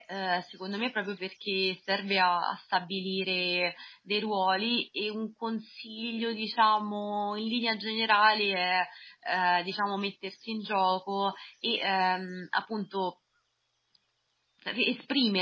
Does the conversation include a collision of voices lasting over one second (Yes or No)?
No